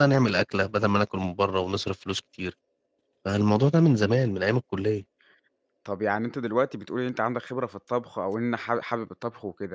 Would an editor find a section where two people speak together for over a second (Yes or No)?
No